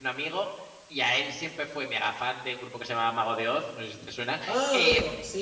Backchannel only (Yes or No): No